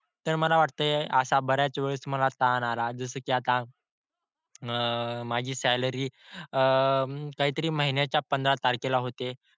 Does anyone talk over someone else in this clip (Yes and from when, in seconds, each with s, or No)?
No